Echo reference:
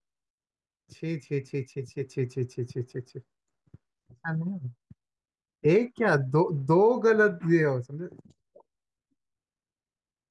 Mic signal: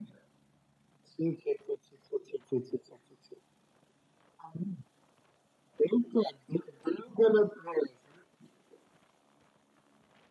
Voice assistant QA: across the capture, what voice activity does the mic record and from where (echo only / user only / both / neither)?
echo only